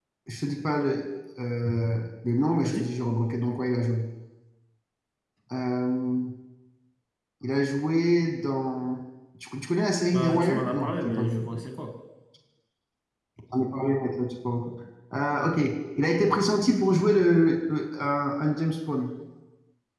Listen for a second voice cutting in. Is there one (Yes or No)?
Yes